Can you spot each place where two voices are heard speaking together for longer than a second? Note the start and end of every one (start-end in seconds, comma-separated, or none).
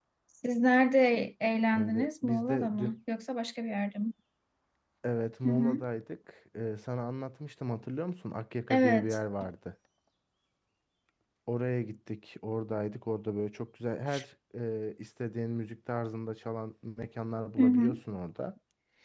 1.7-3.0